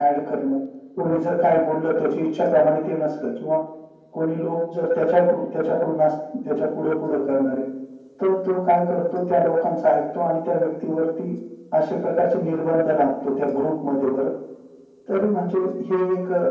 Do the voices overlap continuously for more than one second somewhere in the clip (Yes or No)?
No